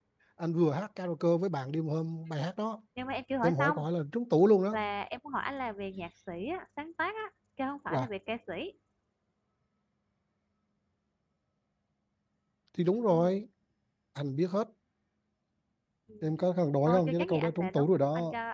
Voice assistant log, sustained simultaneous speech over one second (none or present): present